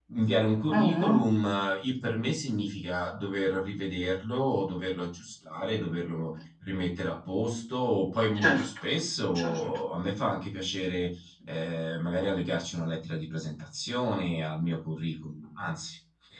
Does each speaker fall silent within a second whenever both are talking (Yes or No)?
Yes